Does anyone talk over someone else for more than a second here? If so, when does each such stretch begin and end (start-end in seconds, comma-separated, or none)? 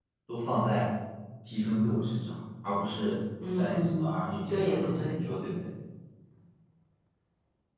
3.6-5.1